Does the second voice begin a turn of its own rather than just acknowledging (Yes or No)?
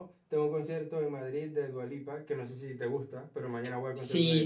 Yes